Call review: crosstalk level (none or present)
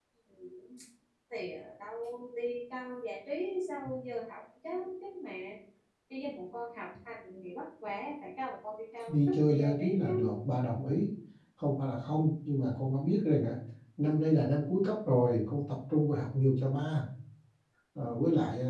present